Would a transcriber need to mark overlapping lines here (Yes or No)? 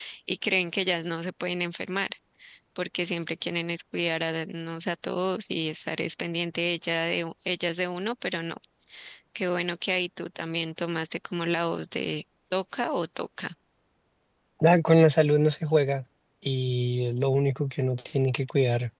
No